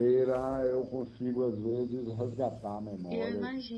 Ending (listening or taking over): taking over